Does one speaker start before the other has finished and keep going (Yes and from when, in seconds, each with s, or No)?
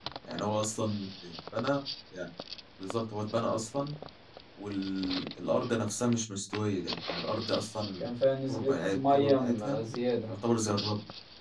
Yes, from 8.5 s